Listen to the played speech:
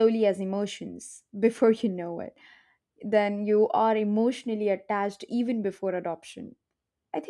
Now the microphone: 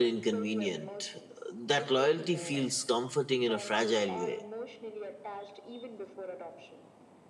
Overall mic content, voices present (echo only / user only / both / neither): both